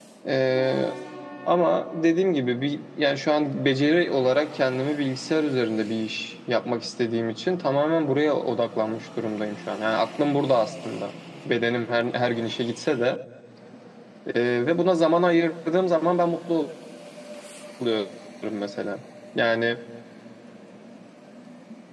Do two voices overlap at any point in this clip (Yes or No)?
No